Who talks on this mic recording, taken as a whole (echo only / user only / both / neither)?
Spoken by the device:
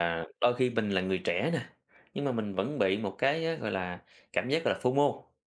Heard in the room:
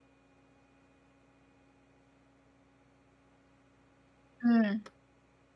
user only